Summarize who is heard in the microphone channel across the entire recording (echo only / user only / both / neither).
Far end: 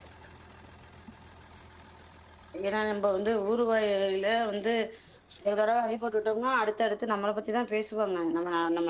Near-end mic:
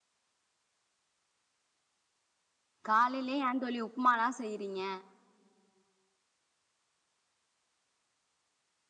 user only